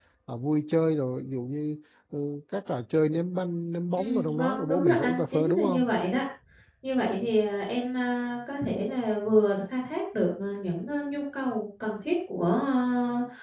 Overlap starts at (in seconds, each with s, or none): 4.0 s